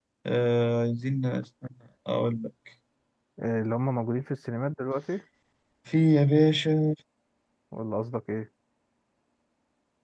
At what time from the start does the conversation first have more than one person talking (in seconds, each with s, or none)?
none